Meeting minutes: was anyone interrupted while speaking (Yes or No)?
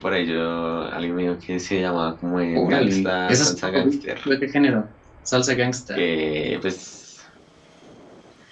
Yes